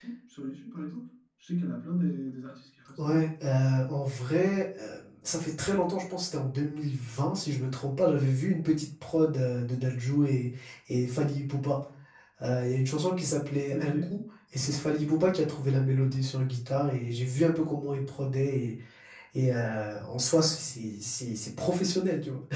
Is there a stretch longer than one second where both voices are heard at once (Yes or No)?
No